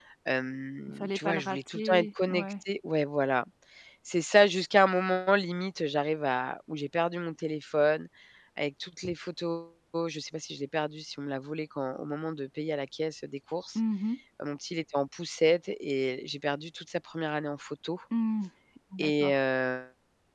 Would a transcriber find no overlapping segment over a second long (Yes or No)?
No